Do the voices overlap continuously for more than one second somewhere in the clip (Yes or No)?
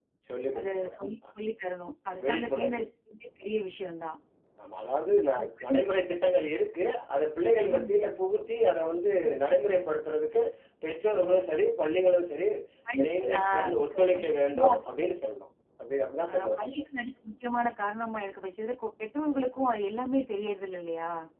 Yes